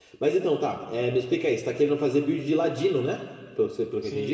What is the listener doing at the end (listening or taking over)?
taking over